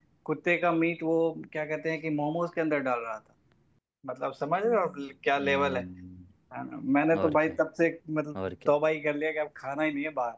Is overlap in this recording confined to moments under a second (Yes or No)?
Yes